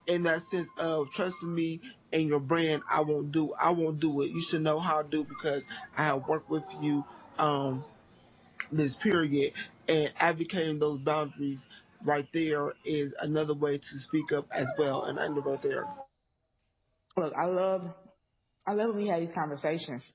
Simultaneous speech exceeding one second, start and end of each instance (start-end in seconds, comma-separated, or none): none